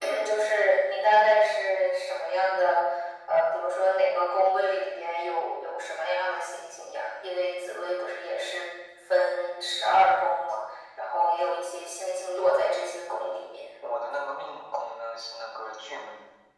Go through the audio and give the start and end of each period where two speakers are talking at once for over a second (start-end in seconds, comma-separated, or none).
none